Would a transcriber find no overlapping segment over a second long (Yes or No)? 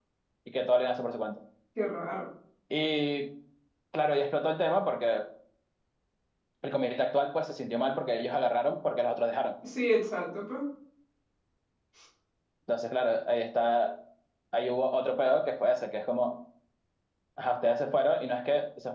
Yes